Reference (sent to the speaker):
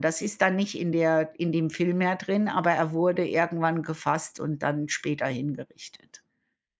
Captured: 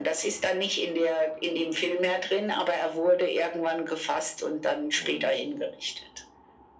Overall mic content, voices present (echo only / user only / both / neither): both